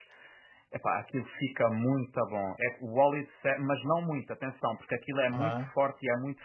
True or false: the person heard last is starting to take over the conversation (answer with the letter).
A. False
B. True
A